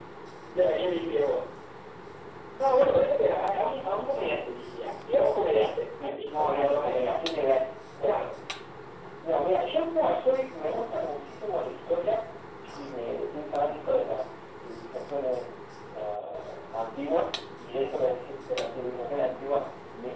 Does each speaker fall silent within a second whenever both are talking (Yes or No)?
No